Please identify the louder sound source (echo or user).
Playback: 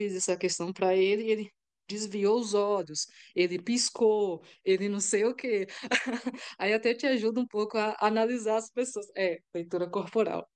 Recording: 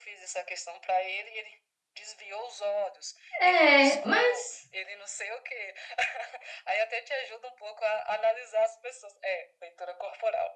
user